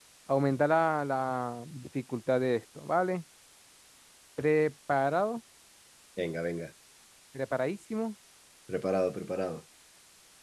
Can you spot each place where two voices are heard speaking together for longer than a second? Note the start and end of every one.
none

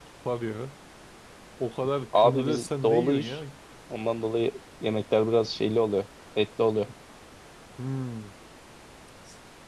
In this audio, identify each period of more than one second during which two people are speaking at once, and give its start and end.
2.2-3.4

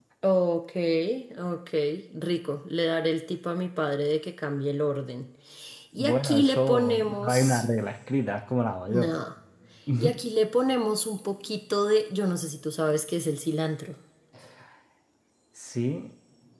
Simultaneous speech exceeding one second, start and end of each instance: 6.0-7.7

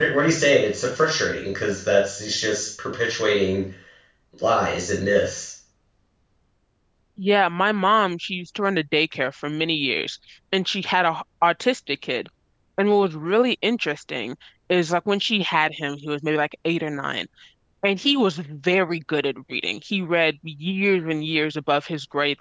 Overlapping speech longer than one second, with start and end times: none

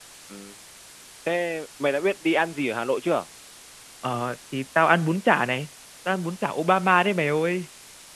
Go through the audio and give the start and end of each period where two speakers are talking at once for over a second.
none

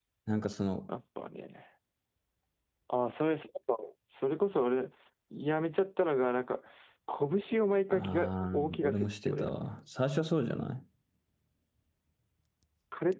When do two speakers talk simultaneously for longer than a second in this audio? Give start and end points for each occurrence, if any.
7.9-9.5

